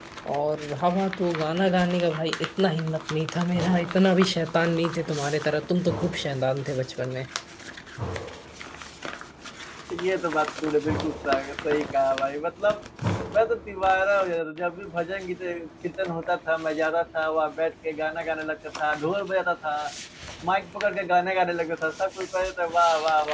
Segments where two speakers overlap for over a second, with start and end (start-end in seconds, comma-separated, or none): none